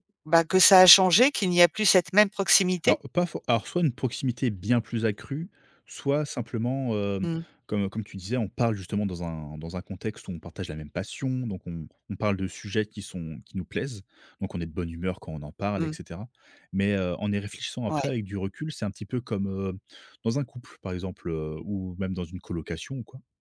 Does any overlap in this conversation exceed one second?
No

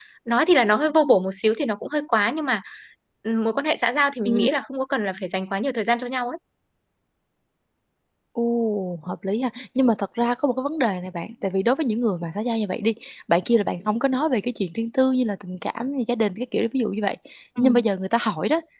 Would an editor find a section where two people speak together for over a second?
No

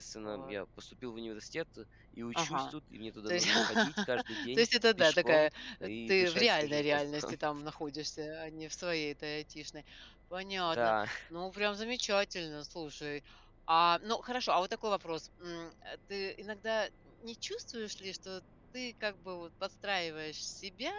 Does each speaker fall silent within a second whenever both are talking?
No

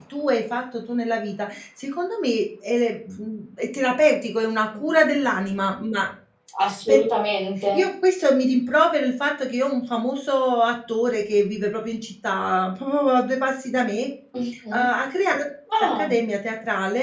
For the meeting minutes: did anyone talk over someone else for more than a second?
No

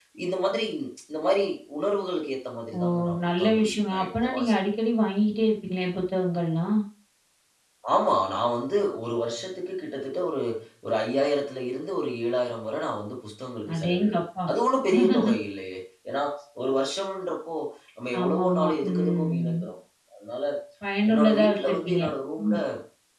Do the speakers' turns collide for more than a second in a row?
Yes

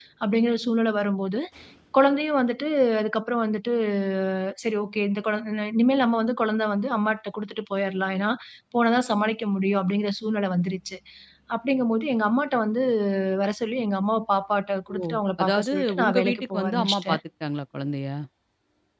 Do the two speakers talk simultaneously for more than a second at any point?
Yes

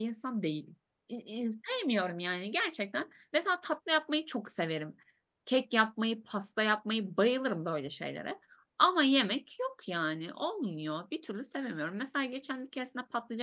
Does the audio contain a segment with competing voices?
No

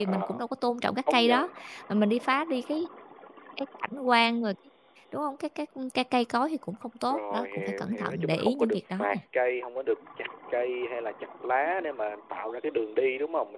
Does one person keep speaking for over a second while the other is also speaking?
Yes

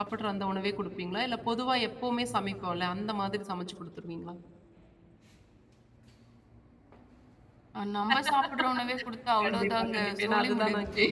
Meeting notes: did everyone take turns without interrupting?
No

